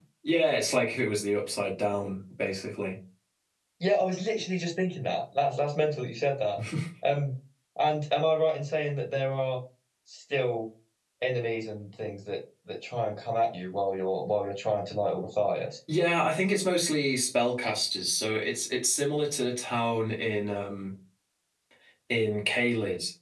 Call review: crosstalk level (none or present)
none